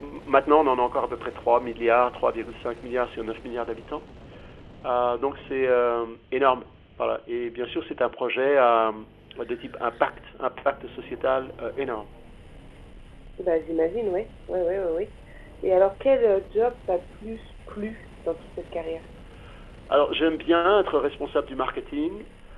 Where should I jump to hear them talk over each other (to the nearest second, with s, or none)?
none